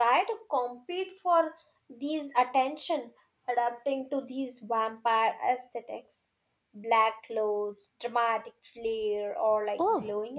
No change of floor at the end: No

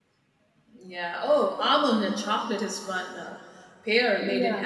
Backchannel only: Yes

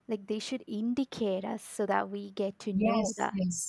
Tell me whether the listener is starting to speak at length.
Yes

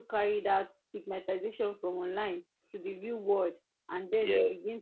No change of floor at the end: Yes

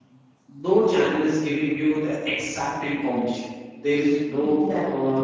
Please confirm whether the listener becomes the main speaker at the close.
No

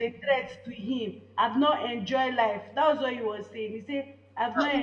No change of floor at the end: No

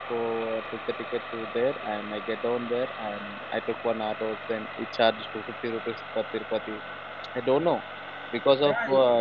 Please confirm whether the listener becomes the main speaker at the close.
Yes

